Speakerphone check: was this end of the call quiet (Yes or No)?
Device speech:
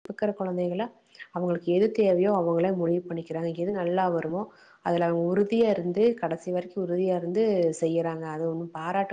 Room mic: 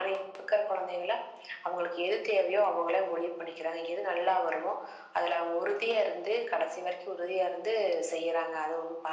Yes